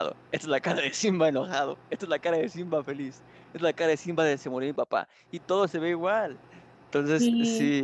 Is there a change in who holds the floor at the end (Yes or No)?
No